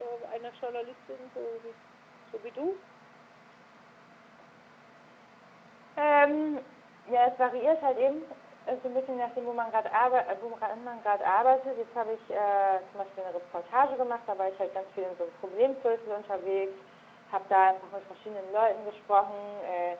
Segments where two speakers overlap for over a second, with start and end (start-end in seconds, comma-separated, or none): none